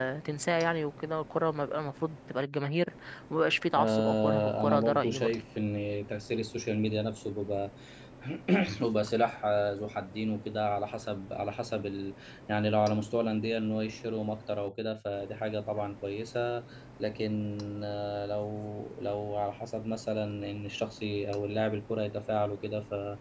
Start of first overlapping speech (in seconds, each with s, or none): 3.8 s